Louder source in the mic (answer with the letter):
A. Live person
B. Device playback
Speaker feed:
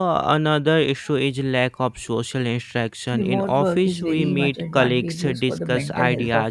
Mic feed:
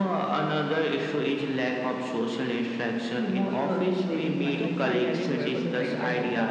B